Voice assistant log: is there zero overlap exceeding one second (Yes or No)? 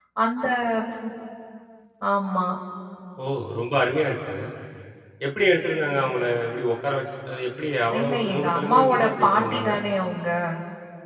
No